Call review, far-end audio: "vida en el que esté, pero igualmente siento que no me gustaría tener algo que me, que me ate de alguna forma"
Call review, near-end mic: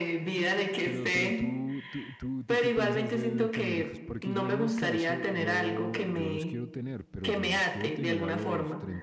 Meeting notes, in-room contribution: present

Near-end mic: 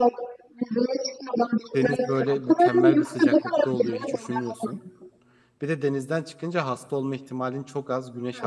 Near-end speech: present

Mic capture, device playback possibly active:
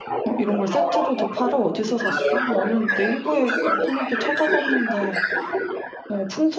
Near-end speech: present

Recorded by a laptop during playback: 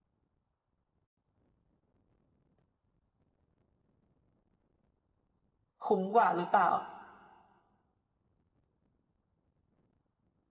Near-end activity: present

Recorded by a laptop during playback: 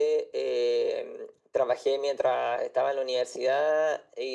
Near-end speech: none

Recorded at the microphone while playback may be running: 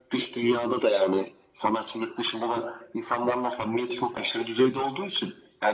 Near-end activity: none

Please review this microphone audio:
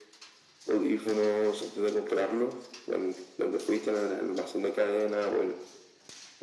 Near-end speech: none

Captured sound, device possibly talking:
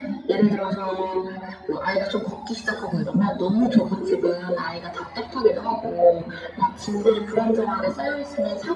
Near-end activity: none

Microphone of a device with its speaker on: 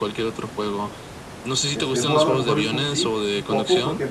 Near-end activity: present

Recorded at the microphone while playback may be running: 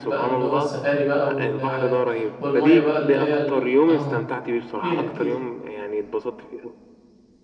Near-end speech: present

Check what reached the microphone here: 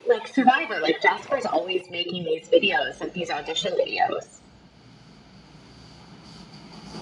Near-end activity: none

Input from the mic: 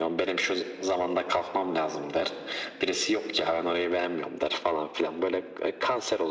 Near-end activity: none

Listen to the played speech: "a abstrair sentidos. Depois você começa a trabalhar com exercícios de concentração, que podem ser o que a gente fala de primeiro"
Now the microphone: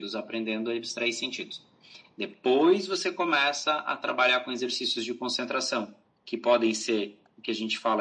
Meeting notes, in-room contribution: none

